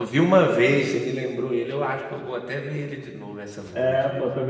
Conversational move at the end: taking over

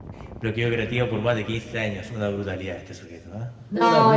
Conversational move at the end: taking over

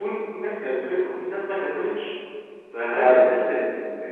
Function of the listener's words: listening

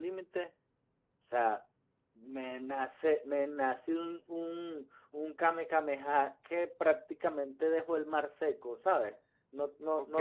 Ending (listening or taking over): taking over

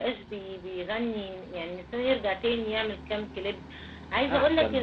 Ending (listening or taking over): listening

